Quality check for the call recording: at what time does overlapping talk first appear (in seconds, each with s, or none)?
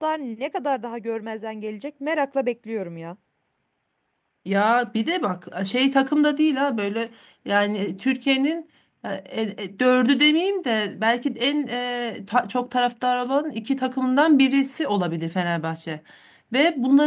none